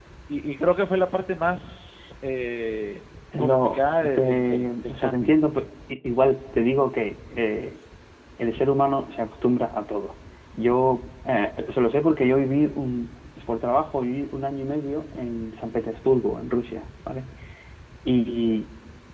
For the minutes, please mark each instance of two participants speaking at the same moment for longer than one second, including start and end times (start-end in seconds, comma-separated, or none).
3.4-5.4